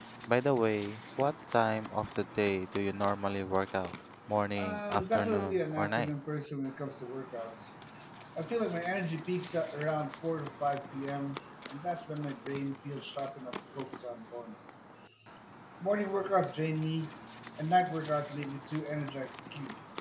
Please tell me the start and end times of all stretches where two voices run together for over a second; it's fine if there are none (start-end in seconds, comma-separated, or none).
4.6-6.1